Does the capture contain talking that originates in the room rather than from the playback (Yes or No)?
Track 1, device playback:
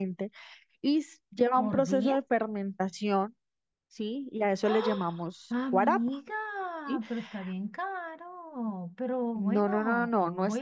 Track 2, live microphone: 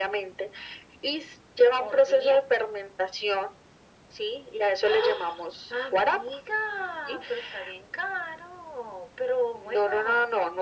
No